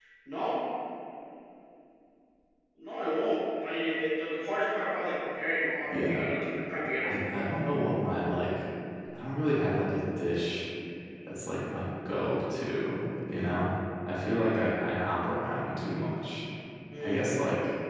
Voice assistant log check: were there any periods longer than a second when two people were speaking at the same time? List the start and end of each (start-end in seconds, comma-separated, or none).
none